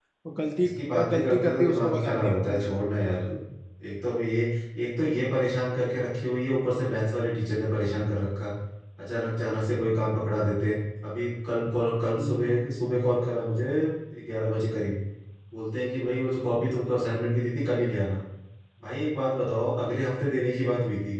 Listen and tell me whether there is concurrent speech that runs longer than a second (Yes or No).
Yes